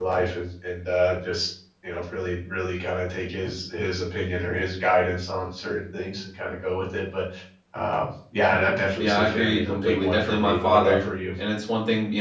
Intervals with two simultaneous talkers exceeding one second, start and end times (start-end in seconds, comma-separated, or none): 9.0-11.1